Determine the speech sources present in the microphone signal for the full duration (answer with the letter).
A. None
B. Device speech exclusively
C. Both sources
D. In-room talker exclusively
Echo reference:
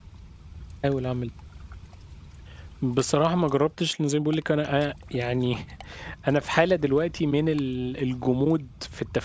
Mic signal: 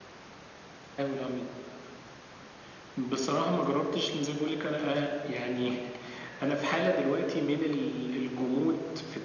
B